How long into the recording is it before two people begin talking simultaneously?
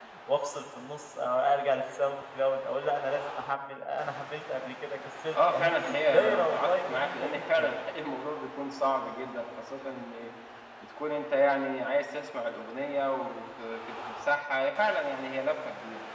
5 s

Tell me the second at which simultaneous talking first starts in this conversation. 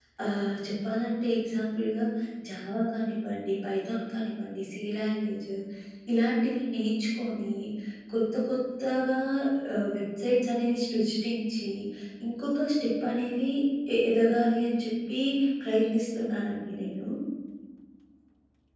none

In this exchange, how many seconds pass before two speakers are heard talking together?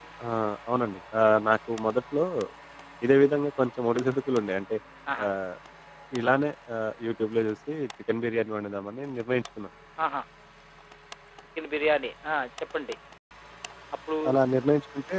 none

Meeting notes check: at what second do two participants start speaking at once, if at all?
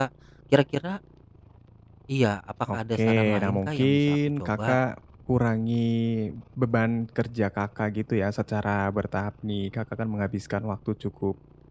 3 s

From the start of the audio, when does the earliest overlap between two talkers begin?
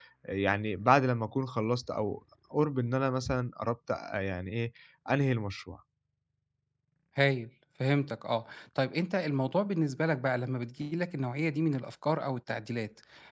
none

